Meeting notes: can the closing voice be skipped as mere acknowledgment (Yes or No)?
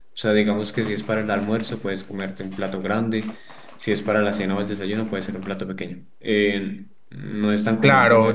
No